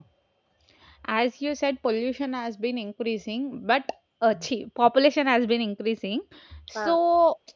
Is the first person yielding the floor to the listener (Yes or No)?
No